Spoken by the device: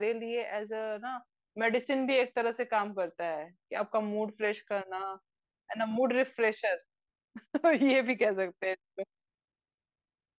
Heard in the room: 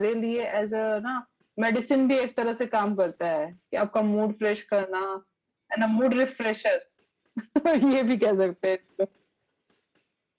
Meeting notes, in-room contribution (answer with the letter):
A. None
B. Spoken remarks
A